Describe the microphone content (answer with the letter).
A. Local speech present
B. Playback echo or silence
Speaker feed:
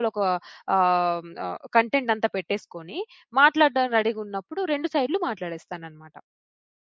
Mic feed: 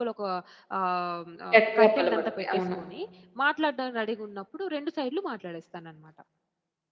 A